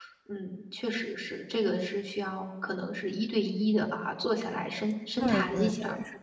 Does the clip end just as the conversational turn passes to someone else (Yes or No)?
Yes